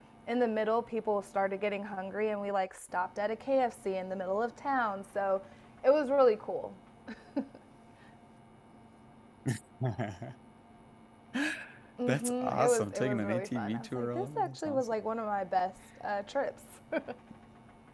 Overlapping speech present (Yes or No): Yes